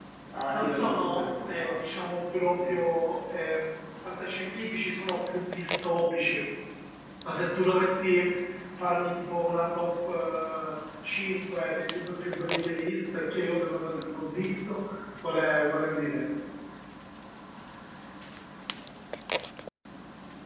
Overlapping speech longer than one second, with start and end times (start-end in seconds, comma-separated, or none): 0.5-1.8